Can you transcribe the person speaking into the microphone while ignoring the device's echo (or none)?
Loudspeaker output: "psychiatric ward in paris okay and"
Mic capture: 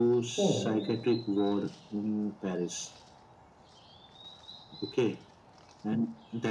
oh